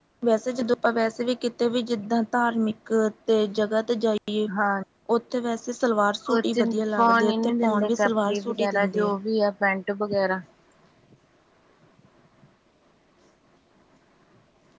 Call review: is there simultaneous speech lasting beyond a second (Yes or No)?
Yes